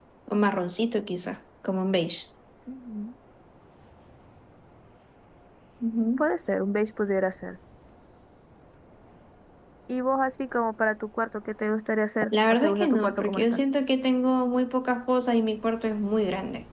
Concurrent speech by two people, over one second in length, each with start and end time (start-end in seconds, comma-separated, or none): 12.3-13.6